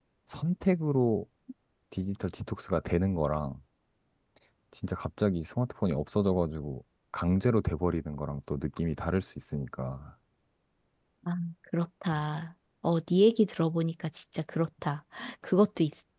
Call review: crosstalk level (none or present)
none